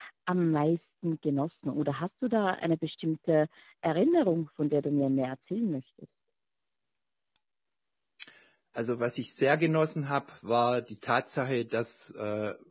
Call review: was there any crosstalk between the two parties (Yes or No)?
No